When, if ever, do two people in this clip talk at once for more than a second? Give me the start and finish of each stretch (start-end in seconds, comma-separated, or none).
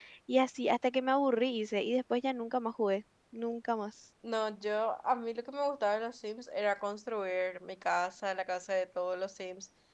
none